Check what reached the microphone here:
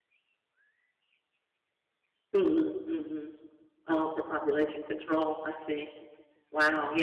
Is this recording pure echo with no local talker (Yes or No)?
No